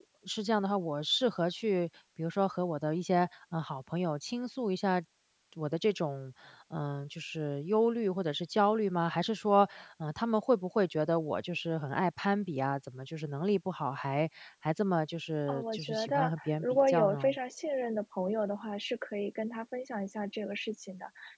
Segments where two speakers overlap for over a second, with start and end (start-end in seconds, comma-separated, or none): 15.5-17.3